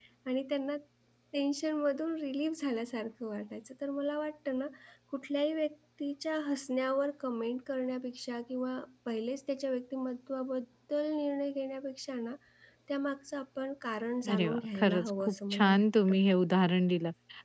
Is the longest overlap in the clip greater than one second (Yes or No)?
Yes